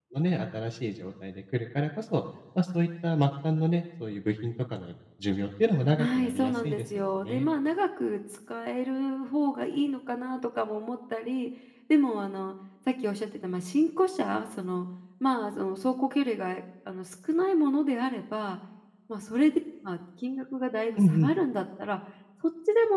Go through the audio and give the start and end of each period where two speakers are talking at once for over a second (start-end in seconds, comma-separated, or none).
6.0-7.5